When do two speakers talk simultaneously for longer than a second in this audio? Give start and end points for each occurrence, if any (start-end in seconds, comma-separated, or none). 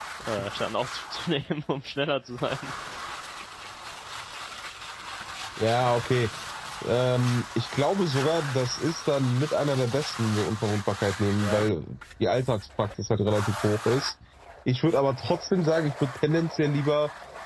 none